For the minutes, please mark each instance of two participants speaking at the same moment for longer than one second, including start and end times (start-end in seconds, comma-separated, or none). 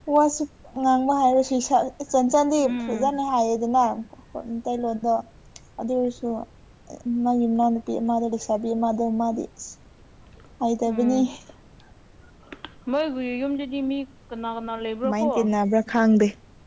none